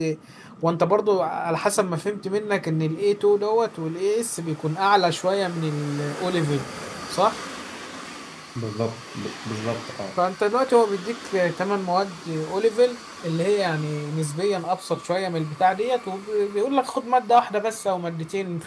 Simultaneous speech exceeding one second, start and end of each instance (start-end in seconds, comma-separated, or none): none